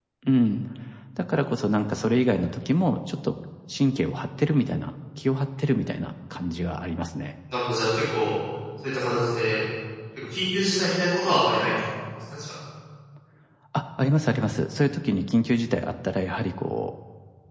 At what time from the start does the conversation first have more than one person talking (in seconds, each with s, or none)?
none